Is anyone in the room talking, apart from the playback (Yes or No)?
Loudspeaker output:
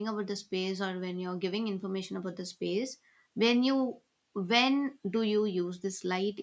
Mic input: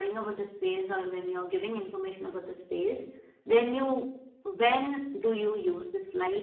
No